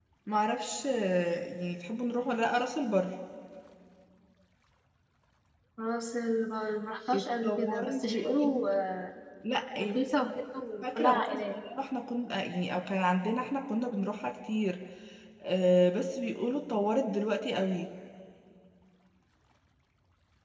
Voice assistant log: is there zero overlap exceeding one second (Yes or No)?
No